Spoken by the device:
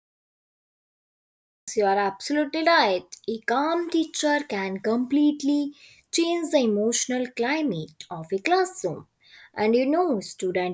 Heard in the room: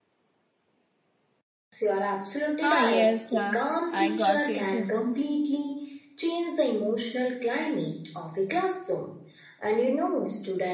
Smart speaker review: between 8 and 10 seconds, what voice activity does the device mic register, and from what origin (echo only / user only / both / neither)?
echo only